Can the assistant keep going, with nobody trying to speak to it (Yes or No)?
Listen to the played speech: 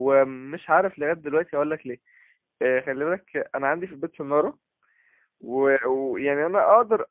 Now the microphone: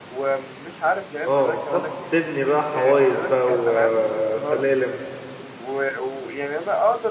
No